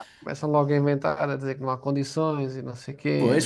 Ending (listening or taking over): taking over